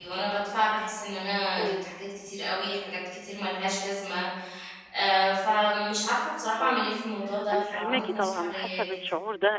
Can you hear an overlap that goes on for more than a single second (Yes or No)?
Yes